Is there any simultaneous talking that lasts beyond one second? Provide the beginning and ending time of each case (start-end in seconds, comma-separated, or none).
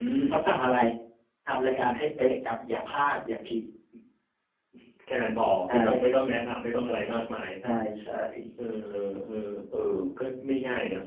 none